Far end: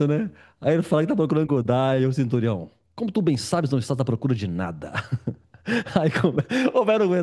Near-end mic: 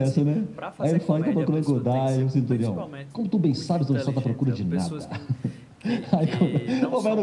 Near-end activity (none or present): present